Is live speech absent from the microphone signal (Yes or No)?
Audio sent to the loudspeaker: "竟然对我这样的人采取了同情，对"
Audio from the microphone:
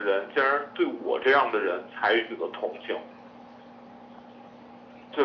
Yes